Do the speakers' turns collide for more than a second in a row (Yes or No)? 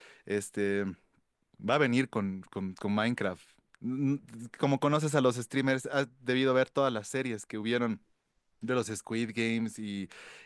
No